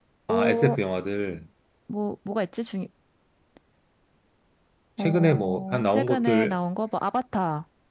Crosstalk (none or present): present